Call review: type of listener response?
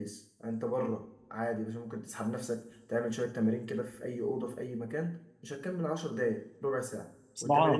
taking over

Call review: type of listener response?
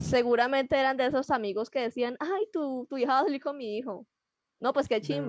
taking over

